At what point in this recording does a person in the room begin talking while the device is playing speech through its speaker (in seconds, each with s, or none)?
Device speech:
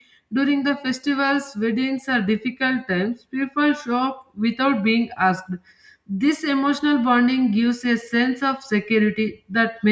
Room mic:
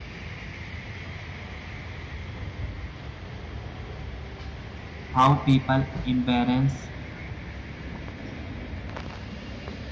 5.1 s